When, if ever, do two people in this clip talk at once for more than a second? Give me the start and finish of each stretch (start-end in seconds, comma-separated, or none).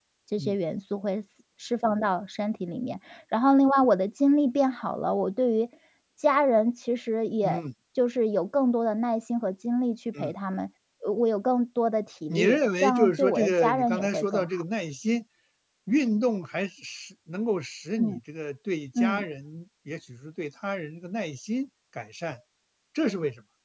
12.3-14.6